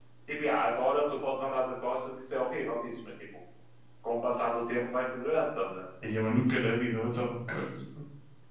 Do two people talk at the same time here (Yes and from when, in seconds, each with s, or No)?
No